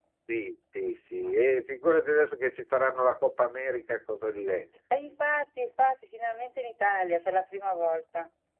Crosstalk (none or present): none